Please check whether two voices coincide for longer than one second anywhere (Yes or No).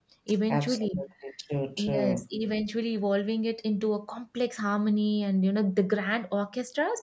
No